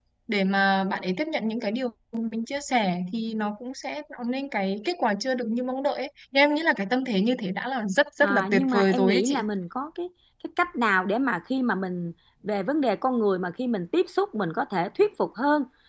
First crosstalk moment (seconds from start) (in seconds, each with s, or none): 8.2 s